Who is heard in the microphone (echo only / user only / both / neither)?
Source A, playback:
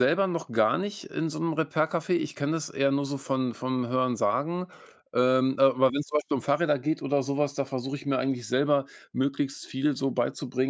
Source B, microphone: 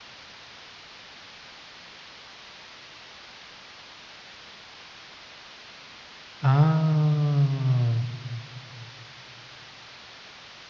user only